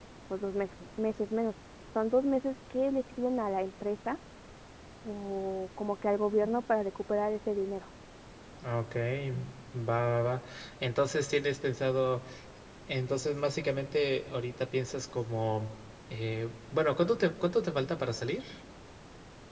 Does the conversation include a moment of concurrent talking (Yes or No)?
No